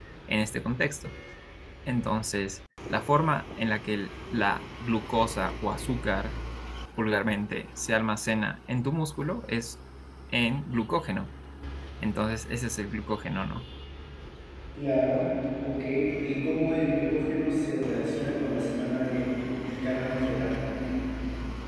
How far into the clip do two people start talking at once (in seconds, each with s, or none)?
none